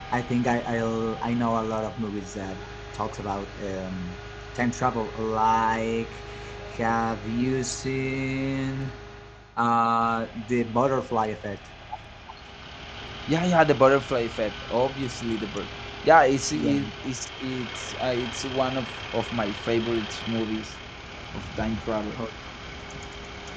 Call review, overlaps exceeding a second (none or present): none